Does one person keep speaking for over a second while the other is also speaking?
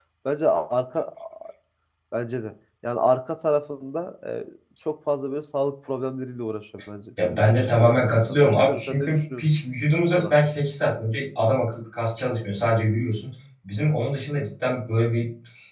Yes, from 7.2 s

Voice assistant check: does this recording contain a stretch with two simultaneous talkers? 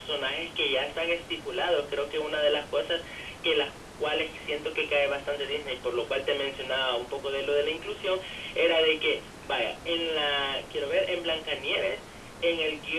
No

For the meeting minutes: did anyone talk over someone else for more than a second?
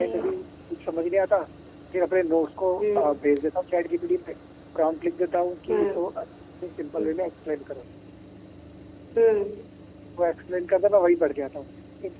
No

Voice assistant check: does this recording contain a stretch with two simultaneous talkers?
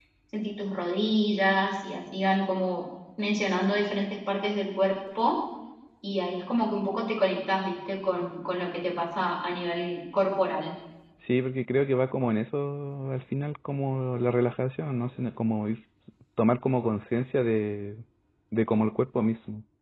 No

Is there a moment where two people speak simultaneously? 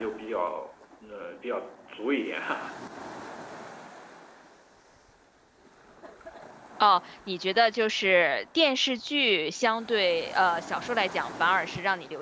No

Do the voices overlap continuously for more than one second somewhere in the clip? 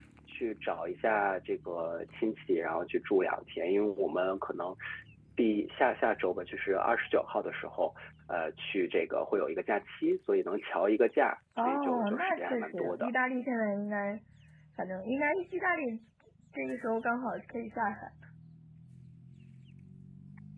Yes, from 11.6 s

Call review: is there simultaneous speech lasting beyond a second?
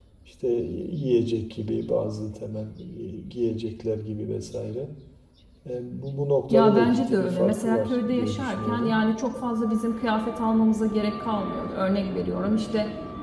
Yes, from 6.5 s

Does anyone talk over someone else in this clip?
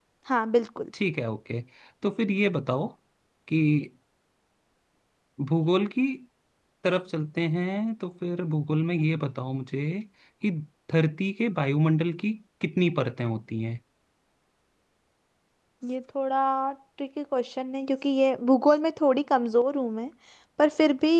No

